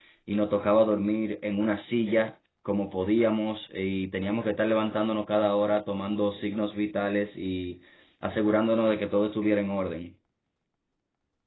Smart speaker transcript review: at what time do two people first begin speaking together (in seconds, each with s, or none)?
none